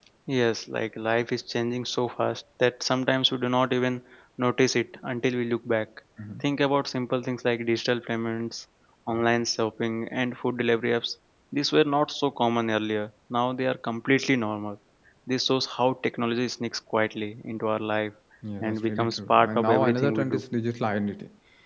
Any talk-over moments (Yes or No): Yes